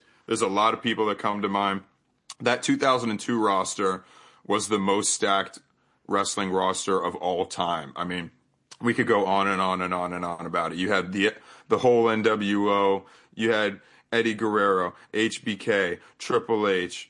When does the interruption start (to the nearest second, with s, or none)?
none